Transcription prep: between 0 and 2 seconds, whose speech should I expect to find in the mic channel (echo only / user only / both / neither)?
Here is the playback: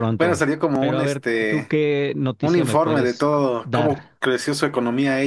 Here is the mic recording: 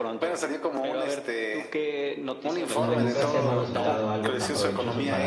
echo only